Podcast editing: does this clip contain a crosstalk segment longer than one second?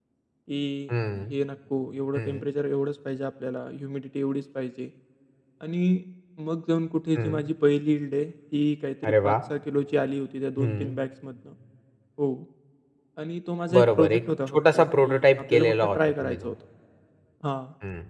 Yes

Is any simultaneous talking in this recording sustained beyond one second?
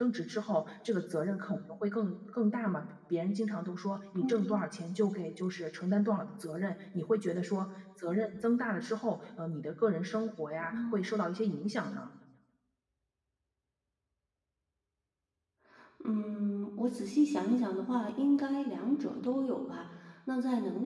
No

